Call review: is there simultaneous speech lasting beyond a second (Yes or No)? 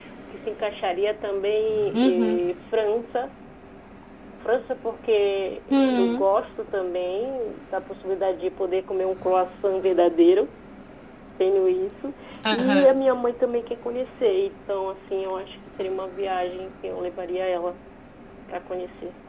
No